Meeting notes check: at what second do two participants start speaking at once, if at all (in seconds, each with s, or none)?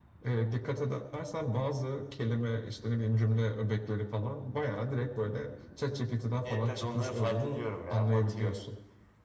6.4 s